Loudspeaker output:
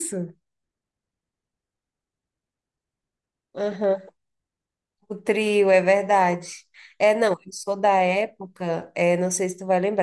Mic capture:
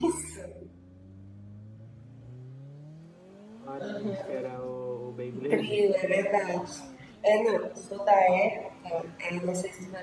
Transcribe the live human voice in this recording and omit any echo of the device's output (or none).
Olha, acho que era o, o Beyblade.